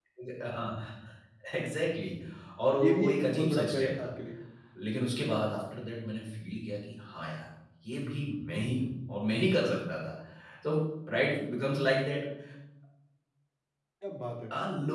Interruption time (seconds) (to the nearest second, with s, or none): 3 s